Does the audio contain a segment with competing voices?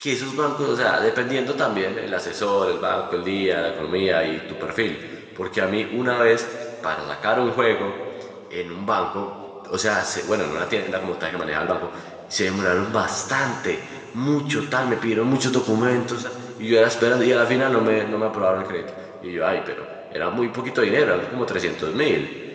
No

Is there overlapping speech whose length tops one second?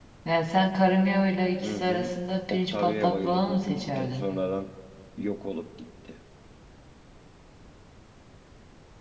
Yes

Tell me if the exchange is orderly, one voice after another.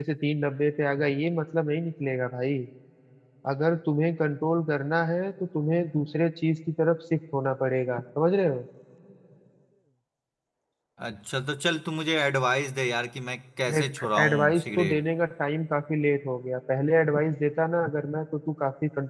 No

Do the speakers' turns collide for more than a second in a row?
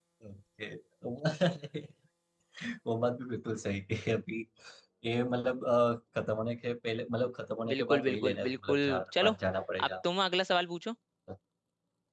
Yes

